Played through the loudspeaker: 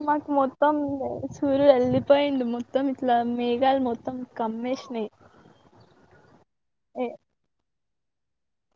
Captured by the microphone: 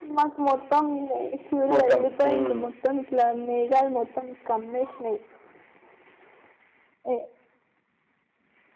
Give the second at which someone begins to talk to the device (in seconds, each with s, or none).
1.7 s